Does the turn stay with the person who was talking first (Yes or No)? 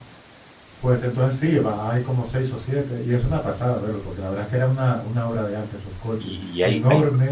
No